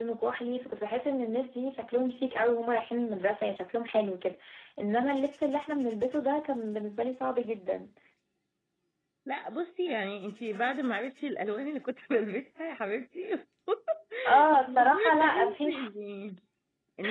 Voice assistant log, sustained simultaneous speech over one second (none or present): present